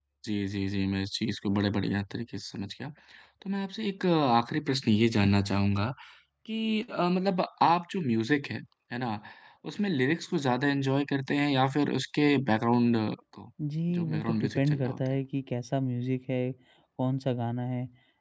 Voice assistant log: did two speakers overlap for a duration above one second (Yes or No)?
Yes